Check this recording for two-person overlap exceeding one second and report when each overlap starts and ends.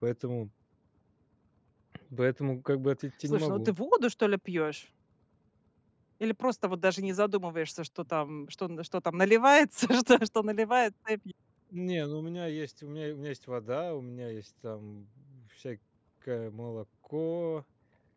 none

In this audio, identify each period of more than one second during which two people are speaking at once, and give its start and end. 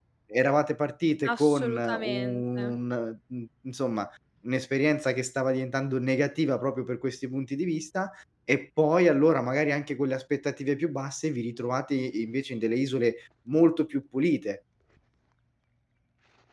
1.2-2.7

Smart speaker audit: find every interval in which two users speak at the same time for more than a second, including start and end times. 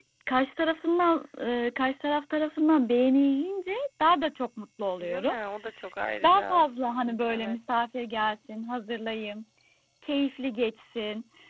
none

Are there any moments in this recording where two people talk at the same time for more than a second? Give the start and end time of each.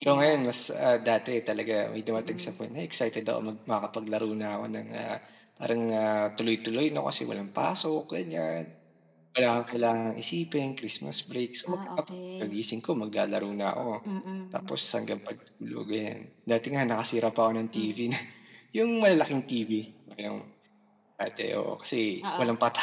none

